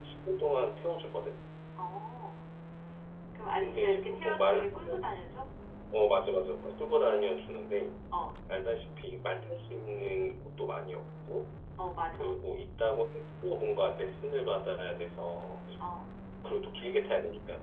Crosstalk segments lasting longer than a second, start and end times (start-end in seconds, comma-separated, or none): 3.6-5.0